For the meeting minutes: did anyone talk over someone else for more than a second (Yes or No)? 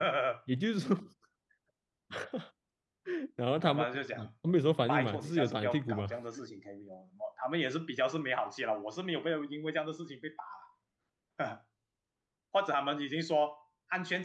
Yes